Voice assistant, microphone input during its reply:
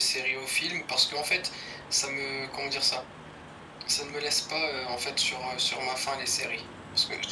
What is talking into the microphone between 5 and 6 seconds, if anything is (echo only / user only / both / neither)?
echo only